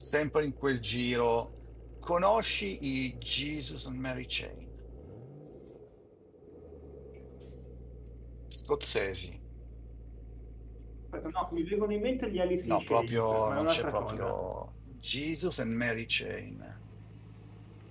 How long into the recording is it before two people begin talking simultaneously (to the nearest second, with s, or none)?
13 s